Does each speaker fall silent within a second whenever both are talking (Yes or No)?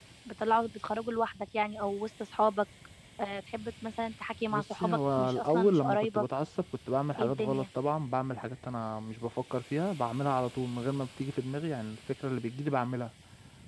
No